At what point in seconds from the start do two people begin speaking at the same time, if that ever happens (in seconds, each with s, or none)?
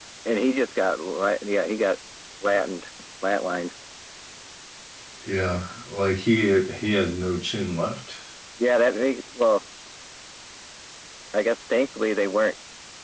none